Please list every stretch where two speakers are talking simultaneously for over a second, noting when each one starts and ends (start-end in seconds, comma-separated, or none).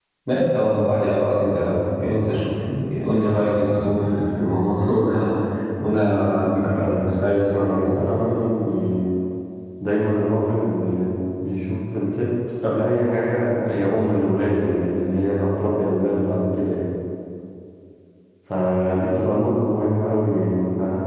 6.8-8.2